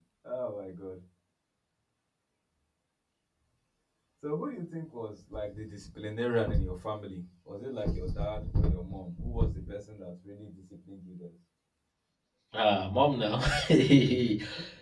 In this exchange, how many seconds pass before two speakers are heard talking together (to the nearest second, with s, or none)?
none